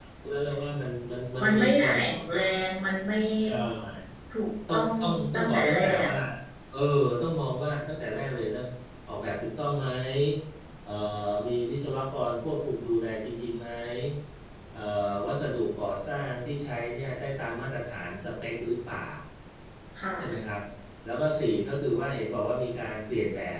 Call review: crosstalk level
present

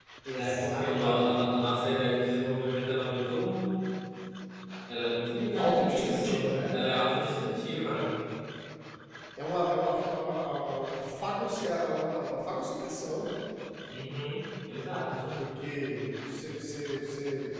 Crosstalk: present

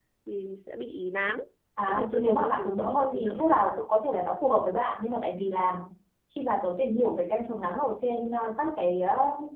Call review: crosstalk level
present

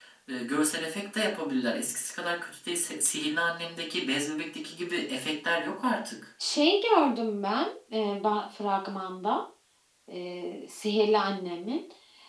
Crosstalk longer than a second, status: none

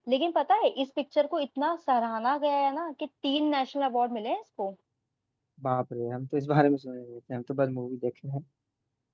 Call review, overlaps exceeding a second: none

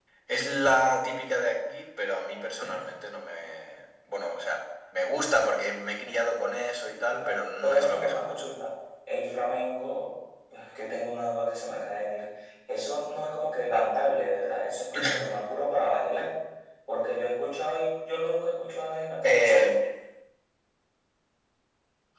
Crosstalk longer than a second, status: present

